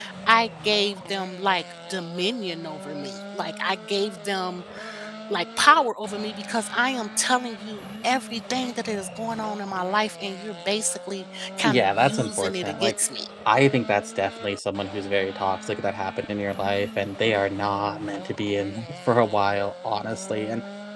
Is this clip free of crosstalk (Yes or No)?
No